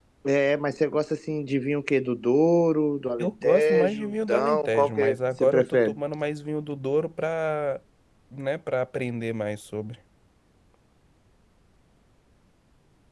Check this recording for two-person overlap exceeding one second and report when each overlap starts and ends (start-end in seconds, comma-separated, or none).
3.2-6.0